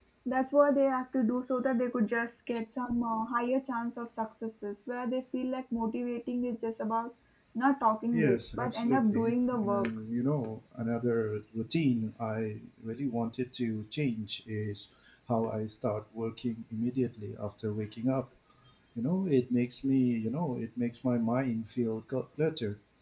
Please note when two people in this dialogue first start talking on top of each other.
8.1 s

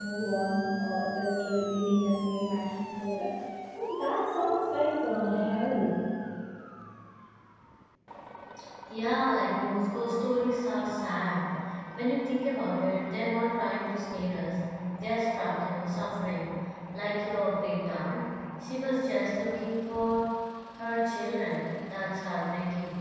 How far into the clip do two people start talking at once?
none

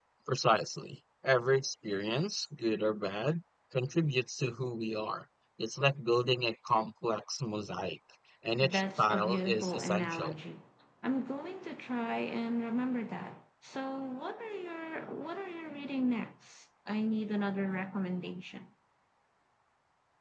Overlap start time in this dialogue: 8.6 s

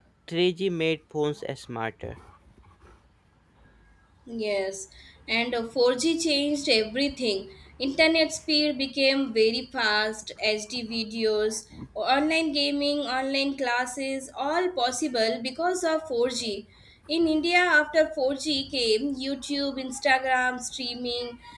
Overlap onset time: none

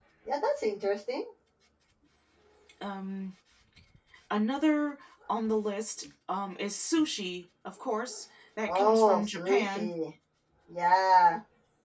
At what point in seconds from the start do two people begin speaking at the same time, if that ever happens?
8.7 s

